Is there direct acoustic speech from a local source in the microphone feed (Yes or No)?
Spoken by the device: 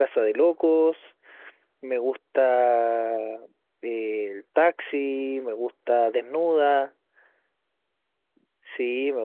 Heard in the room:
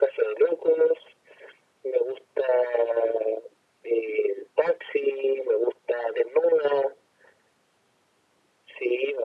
No